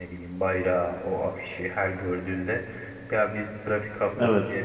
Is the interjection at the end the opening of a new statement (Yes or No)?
No